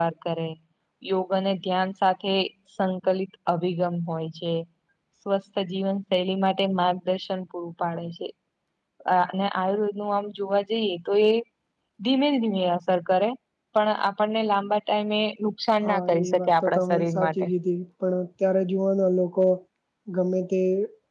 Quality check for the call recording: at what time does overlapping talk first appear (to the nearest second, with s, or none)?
16 s